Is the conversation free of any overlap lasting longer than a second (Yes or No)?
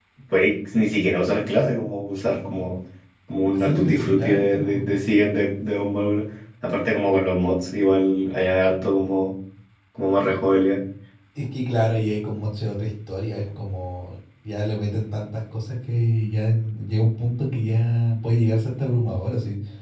No